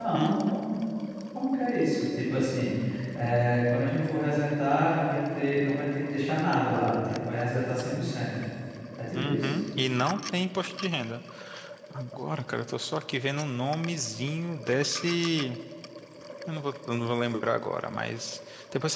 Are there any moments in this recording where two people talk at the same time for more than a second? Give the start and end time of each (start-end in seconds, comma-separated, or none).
none